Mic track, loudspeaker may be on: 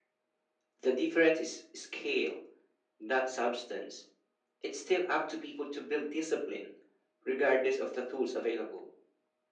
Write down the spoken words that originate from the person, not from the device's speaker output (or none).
none